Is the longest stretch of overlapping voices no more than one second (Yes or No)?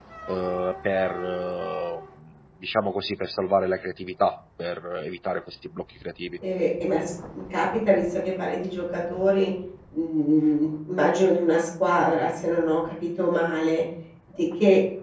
Yes